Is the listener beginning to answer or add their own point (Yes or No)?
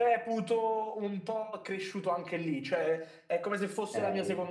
No